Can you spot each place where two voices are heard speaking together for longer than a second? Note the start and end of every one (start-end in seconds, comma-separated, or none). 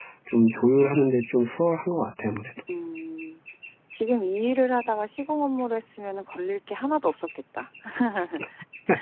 none